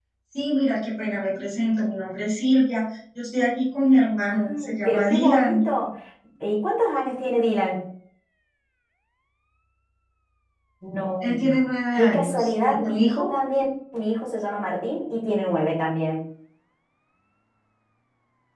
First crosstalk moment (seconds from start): 4.3 s

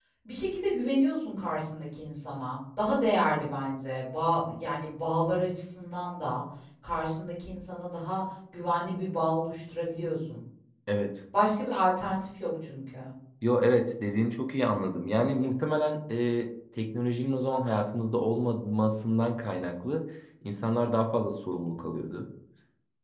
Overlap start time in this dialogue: none

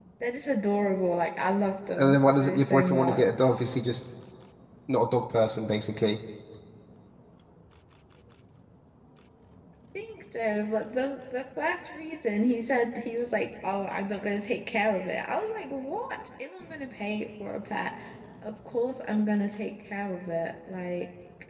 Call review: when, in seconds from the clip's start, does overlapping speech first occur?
2.0 s

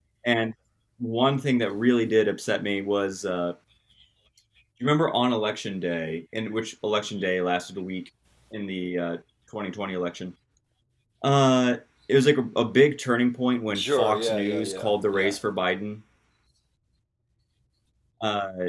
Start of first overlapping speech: 13.7 s

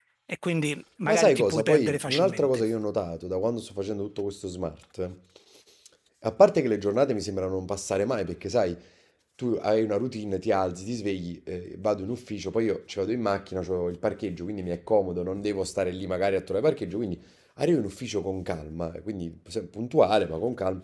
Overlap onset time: 1.1 s

